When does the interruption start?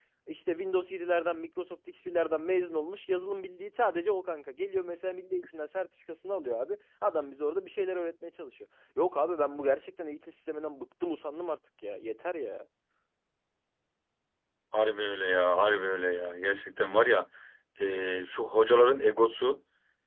none

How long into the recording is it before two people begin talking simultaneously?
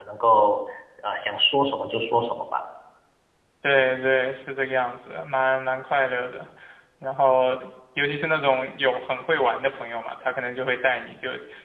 none

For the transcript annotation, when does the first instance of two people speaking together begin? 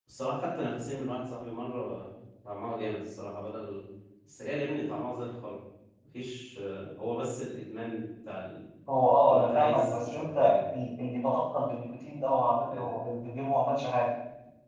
9 s

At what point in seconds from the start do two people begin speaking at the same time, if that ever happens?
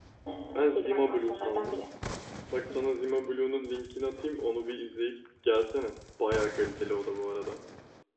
1 s

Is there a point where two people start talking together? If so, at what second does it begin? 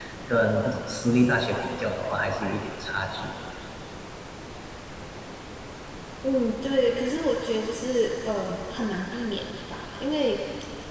none

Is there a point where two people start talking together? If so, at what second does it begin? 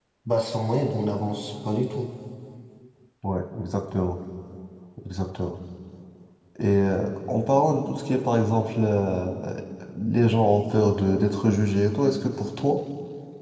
none

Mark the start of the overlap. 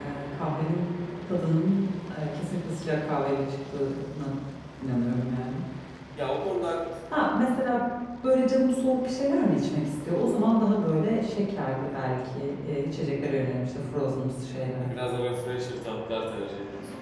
none

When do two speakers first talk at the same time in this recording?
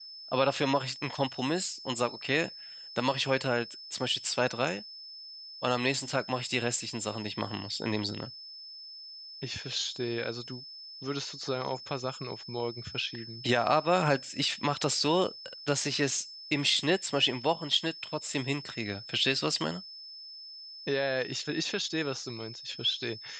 none

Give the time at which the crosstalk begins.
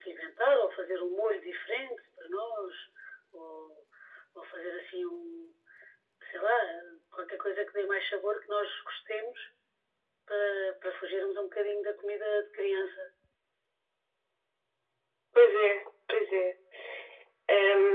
none

